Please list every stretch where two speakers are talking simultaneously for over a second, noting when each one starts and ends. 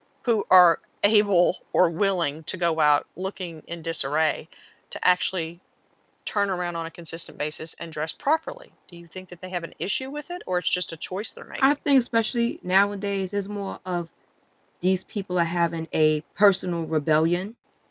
none

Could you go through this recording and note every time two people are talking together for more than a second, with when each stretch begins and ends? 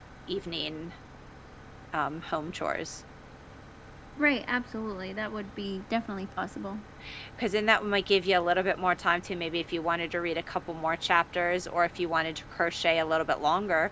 none

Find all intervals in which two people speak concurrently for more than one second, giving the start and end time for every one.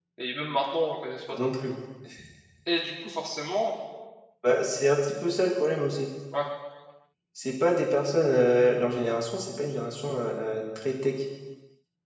none

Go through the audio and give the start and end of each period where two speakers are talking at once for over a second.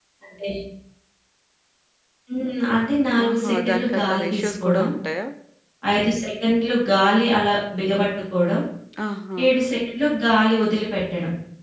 3.2-4.9

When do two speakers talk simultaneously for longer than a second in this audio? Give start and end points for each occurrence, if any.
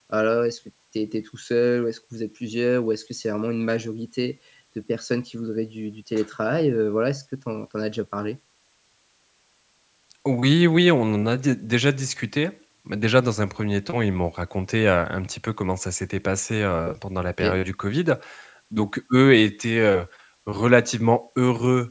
none

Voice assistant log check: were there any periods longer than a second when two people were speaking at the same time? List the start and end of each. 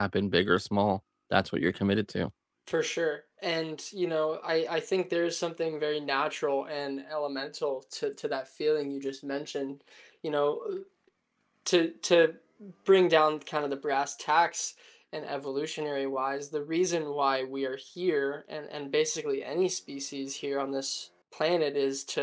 none

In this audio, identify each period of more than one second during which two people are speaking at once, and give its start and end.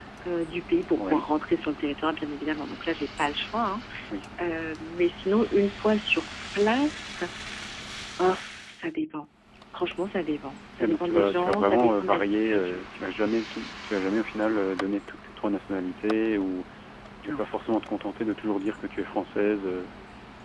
10.8-12.8

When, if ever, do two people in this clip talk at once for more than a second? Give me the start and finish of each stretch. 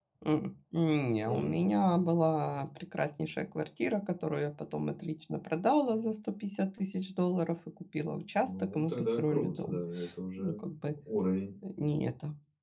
8.4-9.8

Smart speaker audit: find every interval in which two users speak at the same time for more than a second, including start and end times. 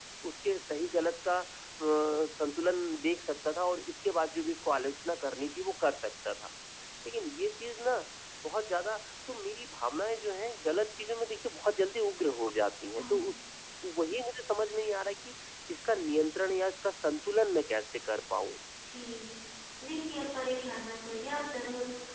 none

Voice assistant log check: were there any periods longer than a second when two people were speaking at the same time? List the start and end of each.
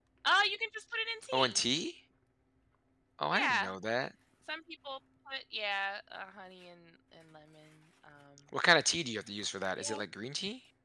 none

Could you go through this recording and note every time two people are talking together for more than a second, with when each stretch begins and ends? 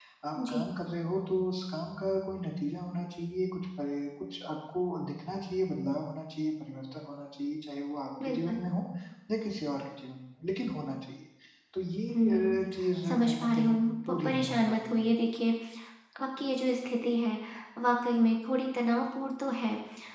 13.1-15.0

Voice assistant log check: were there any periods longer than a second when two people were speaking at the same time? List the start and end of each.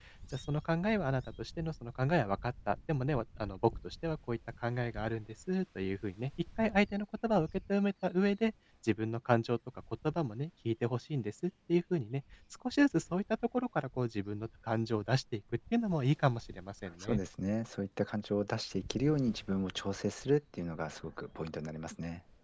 none

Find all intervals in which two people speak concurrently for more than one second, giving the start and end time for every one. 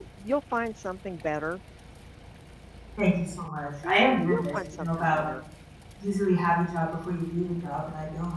3.8-5.2

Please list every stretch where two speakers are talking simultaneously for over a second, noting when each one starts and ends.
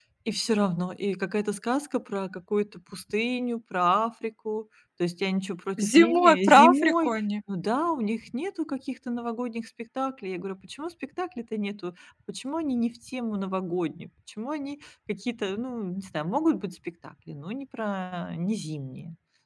5.8-7.2

